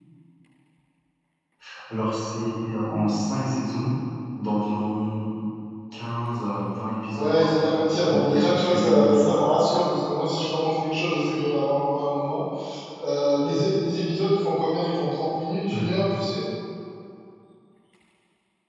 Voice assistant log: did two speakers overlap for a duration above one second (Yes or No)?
Yes